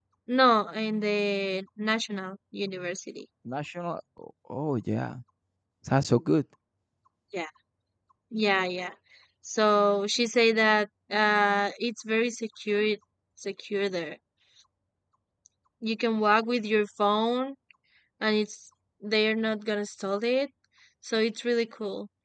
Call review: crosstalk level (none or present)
none